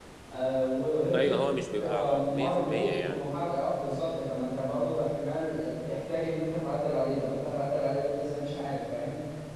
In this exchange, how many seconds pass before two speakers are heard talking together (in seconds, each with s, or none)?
1.1 s